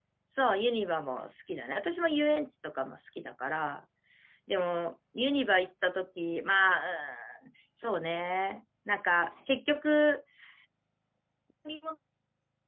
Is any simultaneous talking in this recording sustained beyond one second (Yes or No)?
No